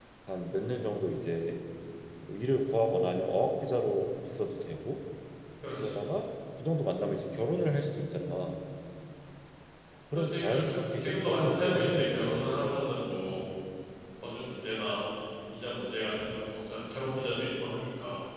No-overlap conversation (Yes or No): No